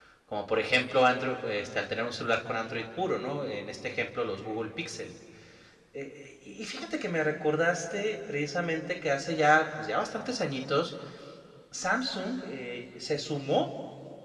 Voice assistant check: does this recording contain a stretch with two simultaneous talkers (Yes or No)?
No